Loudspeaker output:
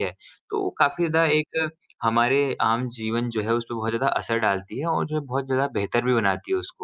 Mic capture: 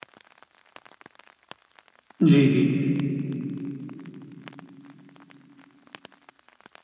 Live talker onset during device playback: 2.2 s

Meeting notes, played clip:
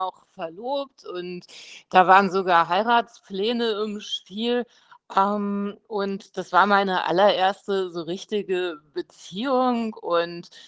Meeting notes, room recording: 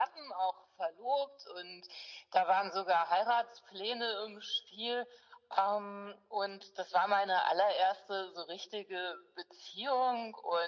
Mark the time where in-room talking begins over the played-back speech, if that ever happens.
none

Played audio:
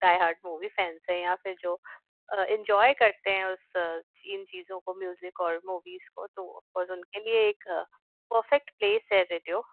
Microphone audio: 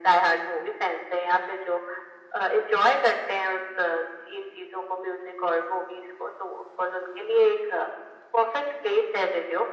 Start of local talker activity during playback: none

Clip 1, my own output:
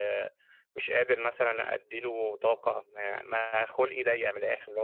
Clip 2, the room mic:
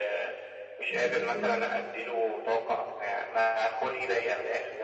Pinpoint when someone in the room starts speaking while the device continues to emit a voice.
0.9 s

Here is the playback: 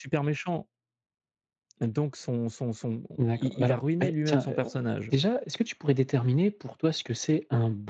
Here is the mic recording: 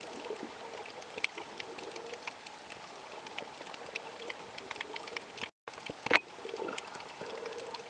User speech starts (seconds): none

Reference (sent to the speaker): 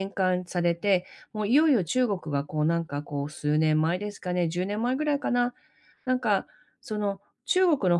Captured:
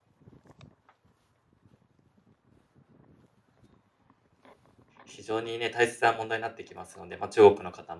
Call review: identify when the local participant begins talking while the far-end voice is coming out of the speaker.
5.0 s

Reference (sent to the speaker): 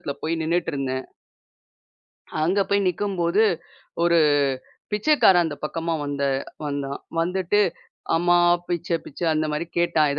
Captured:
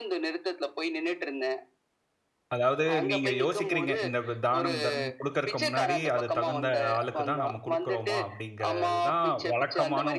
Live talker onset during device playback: 2.5 s

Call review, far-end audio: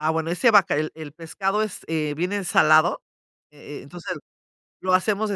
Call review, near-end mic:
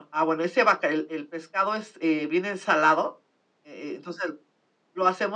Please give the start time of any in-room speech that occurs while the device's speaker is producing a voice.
none

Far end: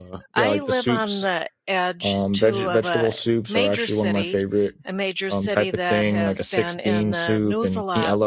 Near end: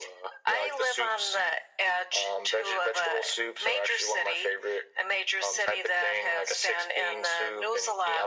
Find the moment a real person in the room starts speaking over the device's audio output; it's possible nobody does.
none

